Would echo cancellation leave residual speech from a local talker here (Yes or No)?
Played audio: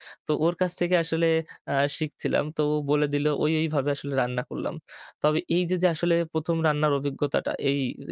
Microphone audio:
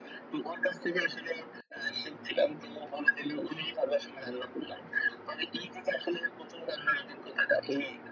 No